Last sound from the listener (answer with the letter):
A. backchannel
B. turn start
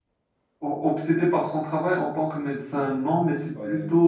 A